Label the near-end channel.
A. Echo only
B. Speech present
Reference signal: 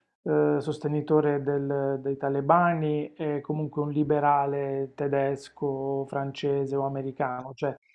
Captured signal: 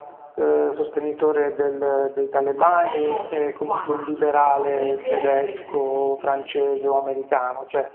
B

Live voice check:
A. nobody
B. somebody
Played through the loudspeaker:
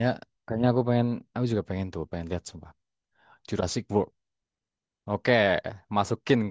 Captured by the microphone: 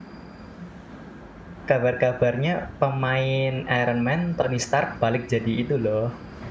B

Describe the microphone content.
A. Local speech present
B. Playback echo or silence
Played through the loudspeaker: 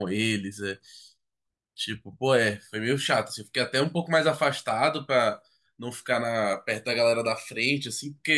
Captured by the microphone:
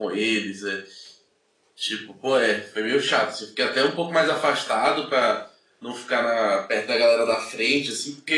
B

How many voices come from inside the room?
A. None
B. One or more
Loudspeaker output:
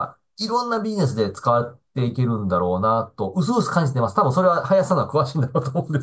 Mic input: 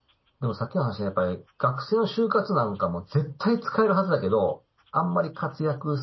B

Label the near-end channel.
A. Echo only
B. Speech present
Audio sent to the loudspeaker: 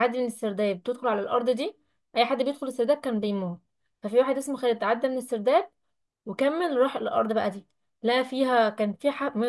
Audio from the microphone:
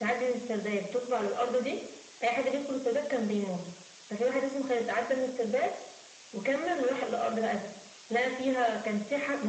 A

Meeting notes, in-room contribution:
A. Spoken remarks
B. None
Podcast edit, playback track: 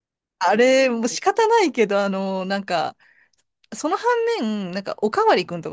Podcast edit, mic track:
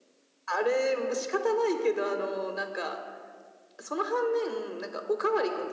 B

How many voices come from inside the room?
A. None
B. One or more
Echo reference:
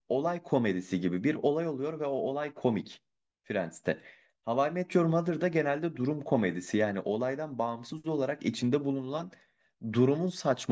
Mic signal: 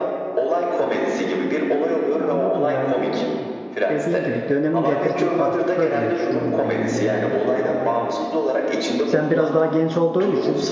B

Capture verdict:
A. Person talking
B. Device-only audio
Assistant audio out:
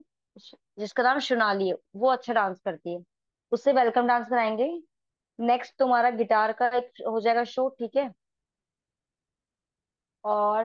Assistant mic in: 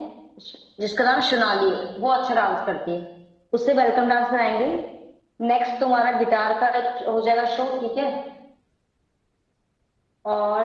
B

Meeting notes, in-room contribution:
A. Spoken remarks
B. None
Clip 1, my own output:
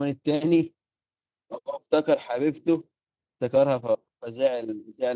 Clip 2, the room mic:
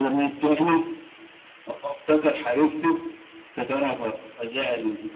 B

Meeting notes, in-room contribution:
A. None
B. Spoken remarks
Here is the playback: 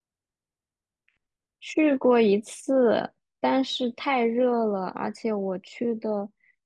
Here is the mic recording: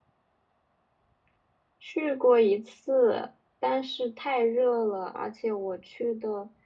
A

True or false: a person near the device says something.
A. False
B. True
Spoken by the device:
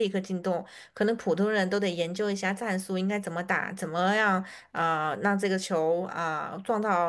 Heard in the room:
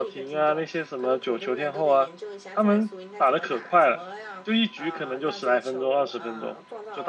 B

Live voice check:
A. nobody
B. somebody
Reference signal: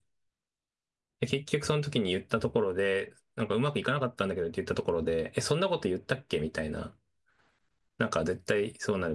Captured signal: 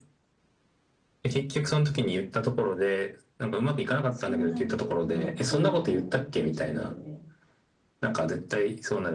B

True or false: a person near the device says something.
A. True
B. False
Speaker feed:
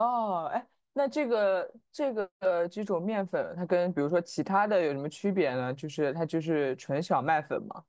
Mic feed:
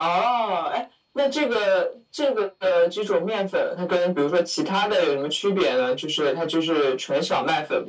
B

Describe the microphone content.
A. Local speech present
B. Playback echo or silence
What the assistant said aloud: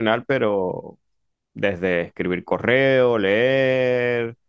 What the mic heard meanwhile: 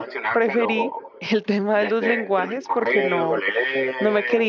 A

